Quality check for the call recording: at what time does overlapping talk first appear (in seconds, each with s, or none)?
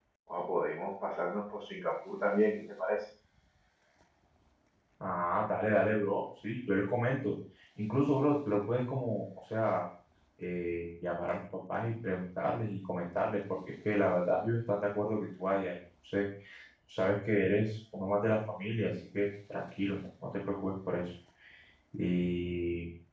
none